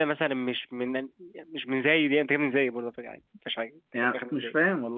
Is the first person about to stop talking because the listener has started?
Yes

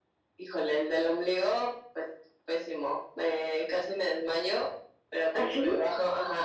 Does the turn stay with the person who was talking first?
Yes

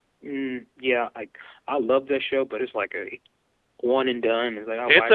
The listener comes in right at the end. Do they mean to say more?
Yes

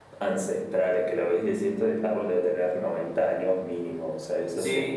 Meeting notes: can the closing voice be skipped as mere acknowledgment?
No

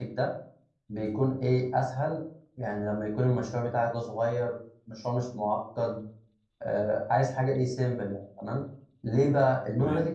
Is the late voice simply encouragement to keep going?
Yes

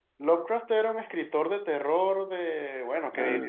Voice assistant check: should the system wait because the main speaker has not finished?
Yes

